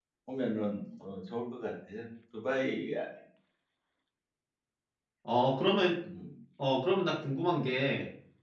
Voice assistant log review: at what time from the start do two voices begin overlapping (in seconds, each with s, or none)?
none